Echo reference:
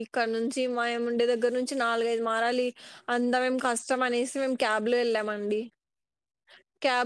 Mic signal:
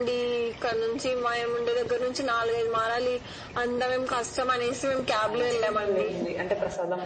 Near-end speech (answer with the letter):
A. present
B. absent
A